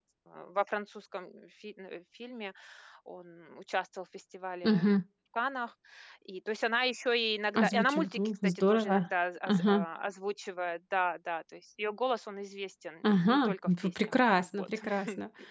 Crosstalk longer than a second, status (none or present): present